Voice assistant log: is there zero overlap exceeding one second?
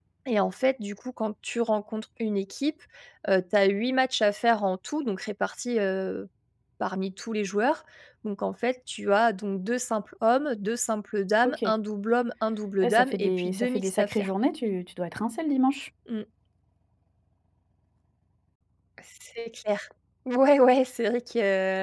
No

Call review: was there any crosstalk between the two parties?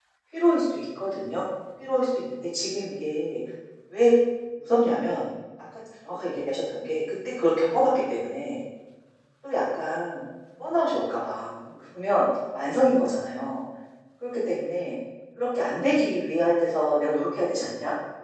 No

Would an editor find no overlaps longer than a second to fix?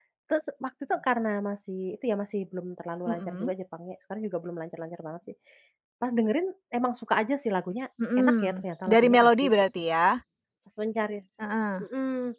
No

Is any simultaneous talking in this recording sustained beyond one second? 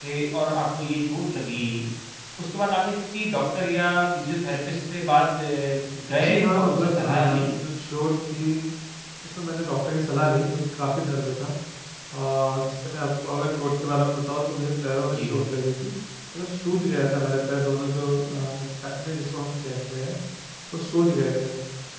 Yes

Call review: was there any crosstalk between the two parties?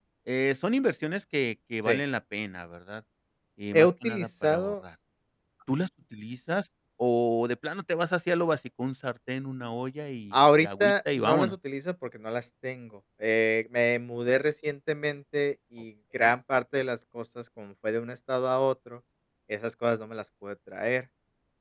Yes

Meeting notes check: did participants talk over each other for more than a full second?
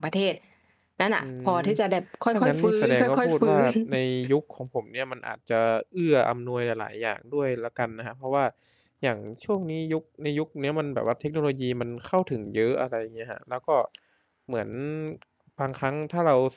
Yes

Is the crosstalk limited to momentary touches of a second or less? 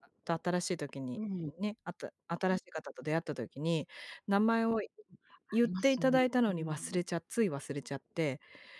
No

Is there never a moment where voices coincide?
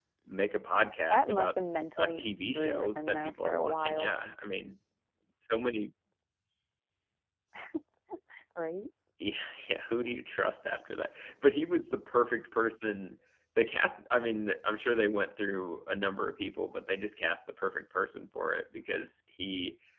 No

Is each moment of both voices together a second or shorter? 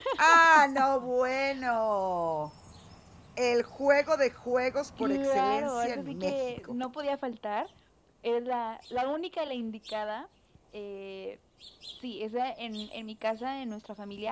No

